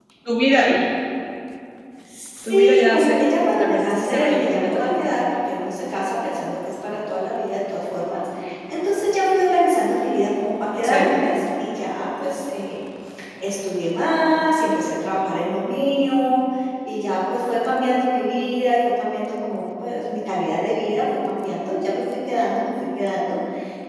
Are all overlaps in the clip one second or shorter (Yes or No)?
No